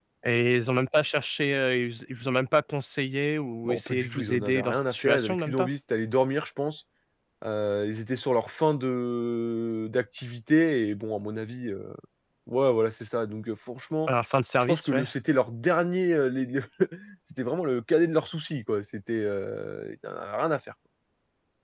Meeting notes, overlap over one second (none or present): present